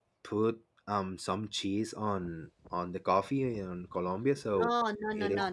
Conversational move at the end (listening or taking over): taking over